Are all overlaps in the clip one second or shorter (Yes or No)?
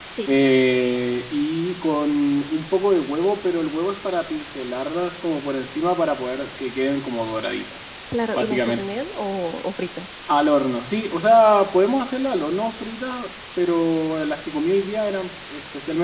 Yes